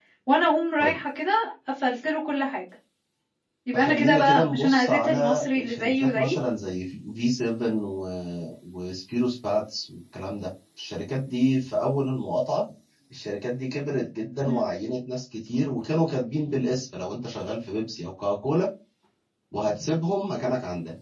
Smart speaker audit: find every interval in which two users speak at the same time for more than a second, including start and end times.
3.7-6.3

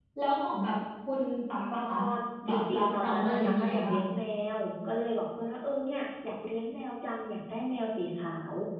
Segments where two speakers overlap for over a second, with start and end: 2.5-4.0

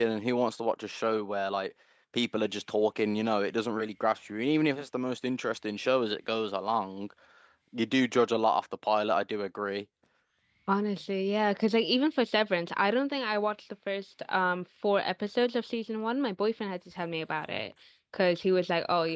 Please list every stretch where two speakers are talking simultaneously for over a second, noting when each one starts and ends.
none

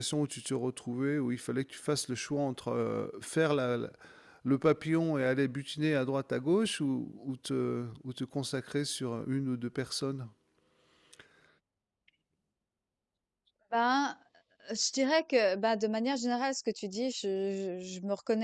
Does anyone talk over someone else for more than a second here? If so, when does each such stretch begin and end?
none

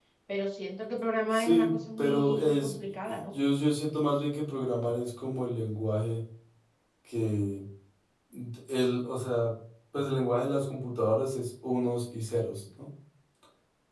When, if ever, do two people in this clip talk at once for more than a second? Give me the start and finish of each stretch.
1.3-2.8

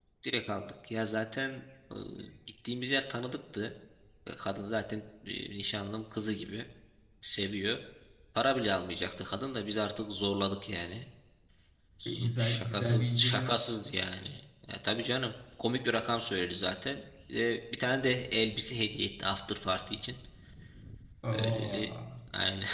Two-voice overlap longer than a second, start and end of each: 12.0-13.6

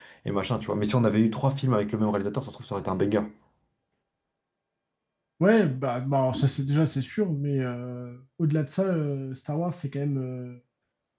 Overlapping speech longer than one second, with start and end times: none

